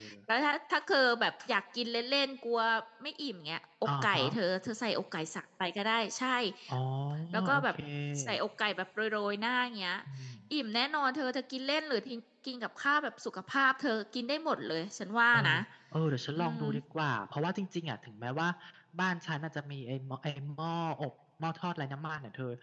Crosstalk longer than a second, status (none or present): none